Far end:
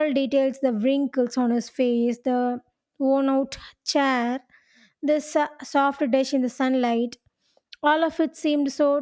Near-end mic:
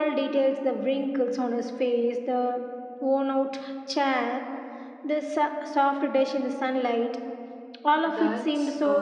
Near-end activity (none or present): present